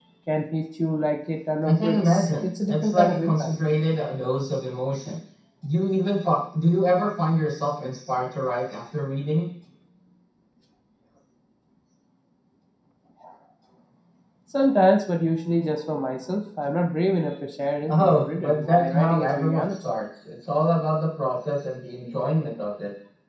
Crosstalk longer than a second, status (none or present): present